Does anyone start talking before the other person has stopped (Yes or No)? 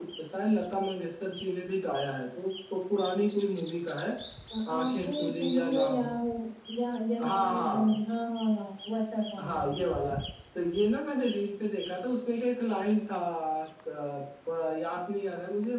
Yes